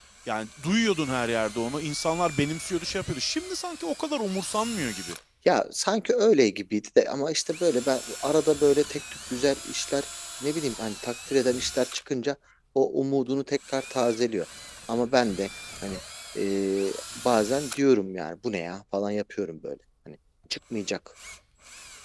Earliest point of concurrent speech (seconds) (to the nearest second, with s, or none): none